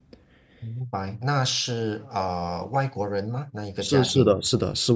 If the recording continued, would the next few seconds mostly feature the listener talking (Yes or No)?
Yes